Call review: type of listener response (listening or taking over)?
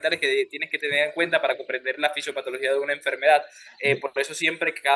listening